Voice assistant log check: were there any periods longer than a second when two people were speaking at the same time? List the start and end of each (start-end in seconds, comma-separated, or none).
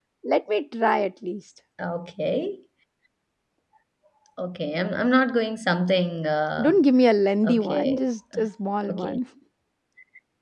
none